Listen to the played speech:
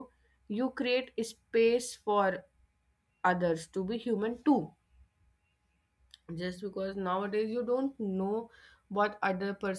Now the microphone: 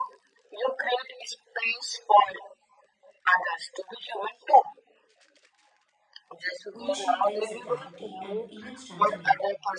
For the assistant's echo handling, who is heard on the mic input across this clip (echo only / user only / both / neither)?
both